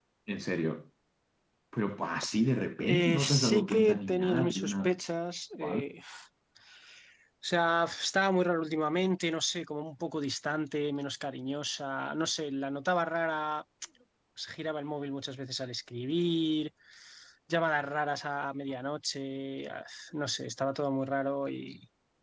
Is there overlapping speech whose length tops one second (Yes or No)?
Yes